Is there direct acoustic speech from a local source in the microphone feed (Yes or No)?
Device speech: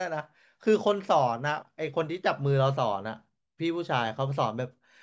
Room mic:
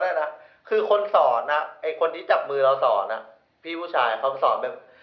No